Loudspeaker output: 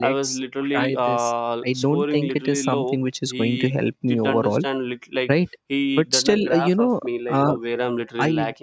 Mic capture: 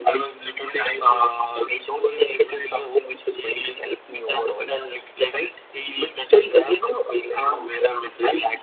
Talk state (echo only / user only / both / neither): echo only